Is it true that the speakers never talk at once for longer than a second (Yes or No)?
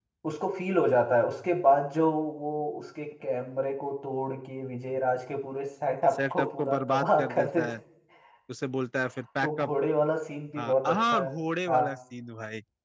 No